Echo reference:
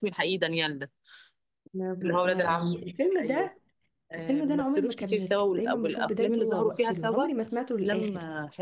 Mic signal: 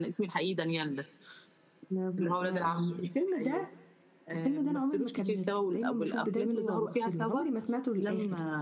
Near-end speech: none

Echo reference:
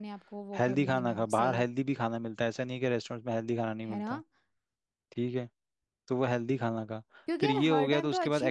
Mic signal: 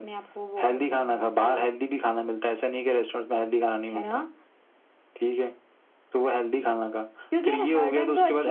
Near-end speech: none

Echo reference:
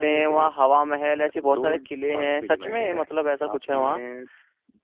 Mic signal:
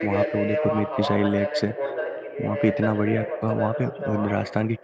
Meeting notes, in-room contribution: present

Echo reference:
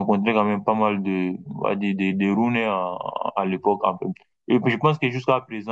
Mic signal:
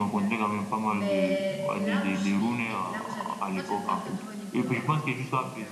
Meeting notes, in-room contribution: present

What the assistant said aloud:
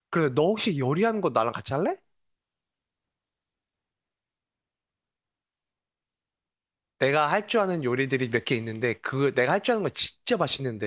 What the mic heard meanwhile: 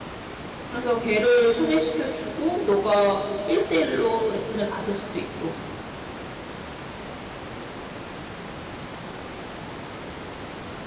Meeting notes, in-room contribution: present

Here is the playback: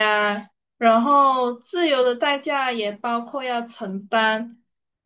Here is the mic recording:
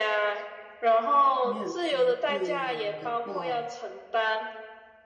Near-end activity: present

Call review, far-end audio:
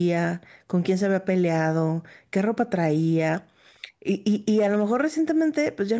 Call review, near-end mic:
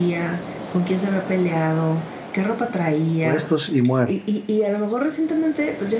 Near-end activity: present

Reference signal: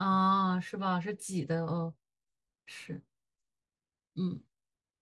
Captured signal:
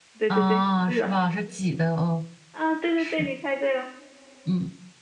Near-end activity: present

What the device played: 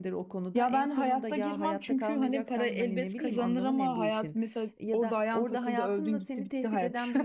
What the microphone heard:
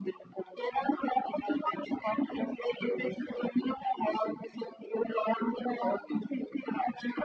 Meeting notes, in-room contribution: none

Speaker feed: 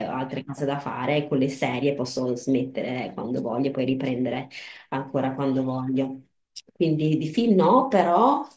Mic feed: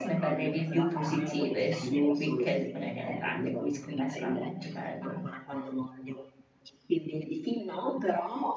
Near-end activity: present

